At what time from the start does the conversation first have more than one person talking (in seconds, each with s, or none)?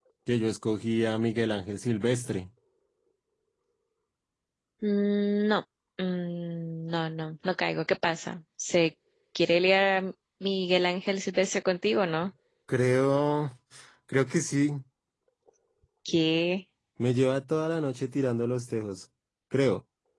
none